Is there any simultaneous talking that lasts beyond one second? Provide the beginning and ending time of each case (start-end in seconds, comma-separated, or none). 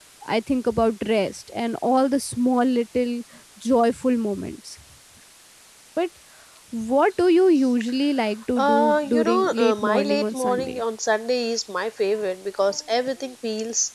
8.6-10.8